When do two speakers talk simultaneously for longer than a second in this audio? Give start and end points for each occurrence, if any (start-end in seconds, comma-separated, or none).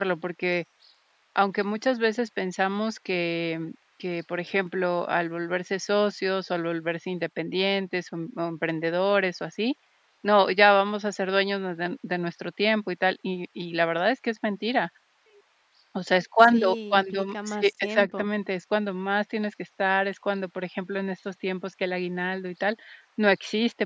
16.5-18.3